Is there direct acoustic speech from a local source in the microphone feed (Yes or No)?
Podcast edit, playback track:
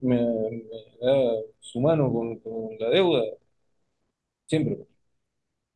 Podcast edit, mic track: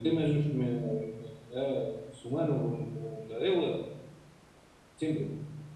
No